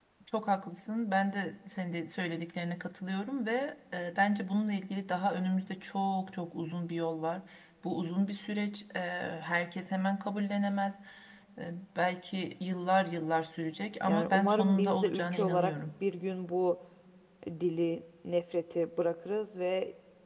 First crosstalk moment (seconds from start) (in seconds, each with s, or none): 14.1 s